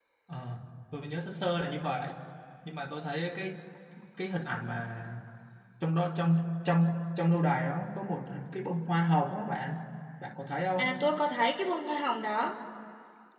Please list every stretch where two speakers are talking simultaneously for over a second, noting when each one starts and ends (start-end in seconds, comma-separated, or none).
none